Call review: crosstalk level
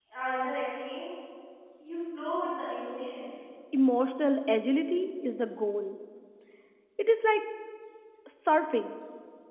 none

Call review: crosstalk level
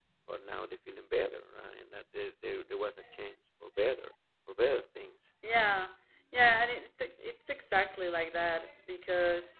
none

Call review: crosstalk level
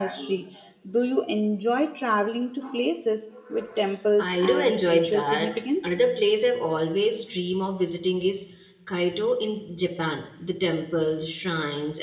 present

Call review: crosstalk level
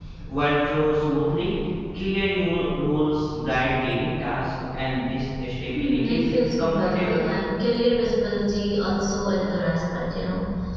present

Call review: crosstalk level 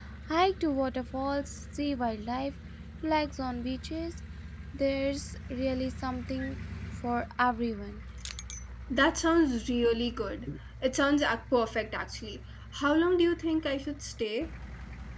none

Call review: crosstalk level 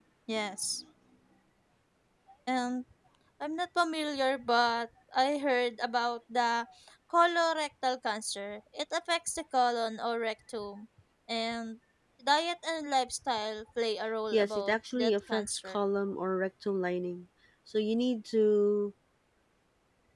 present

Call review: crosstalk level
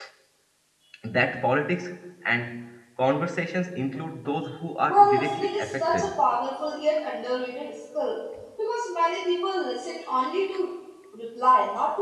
present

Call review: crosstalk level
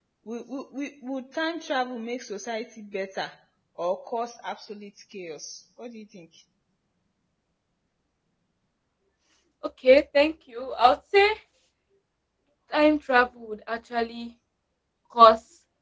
none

